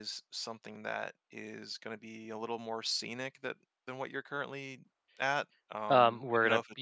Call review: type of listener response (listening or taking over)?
taking over